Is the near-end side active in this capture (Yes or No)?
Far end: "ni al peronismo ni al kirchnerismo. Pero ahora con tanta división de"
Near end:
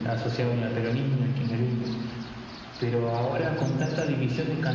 No